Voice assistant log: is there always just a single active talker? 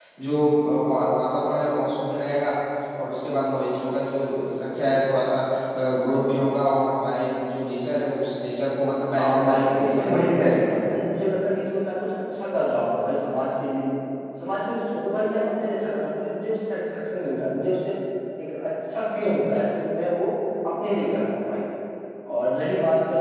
No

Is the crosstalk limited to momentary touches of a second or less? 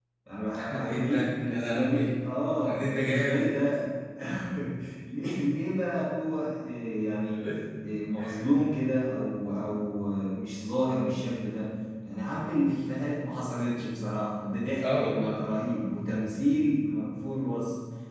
No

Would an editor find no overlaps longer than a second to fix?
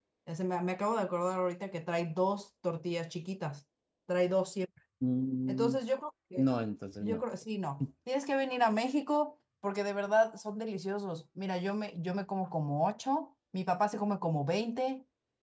Yes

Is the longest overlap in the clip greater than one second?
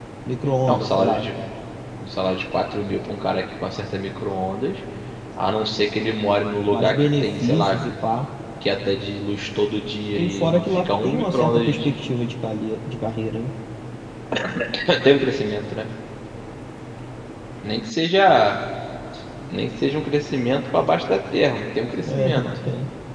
Yes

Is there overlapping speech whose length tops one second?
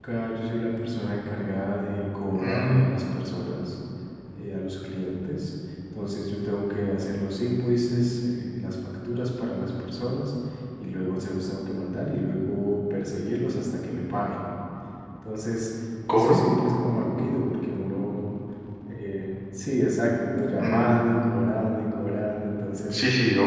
No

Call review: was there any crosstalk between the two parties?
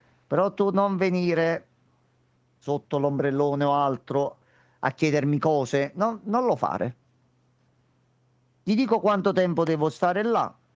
No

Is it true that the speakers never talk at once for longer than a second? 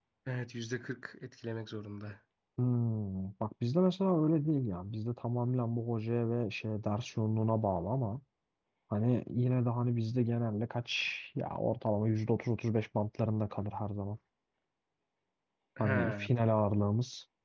Yes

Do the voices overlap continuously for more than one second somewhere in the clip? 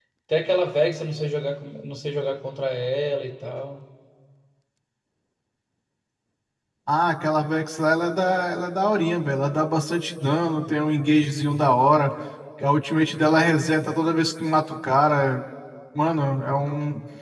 No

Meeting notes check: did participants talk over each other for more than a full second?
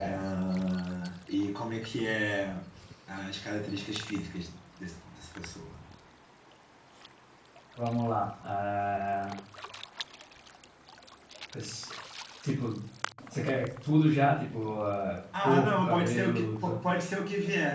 Yes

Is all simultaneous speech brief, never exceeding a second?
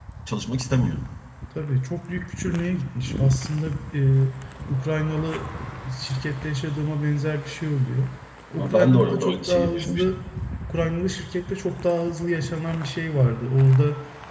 No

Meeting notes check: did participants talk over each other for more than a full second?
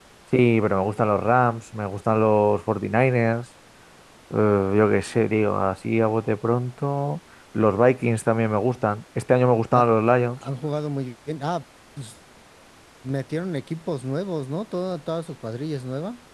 No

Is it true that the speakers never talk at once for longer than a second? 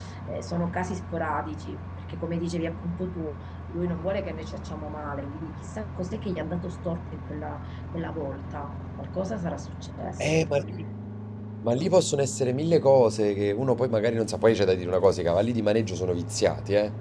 Yes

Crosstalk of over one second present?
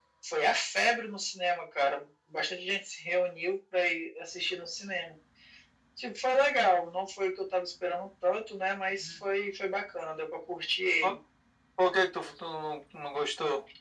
No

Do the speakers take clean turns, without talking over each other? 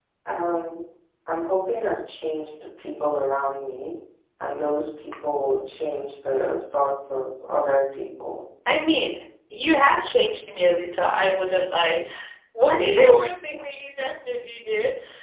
Yes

